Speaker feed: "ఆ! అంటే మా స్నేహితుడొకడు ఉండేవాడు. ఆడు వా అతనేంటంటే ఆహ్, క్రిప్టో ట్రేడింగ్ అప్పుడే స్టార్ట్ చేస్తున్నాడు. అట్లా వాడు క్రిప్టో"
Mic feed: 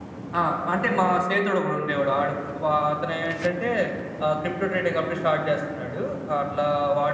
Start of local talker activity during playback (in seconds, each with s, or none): none